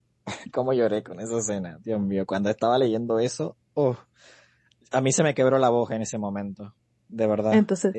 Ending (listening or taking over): taking over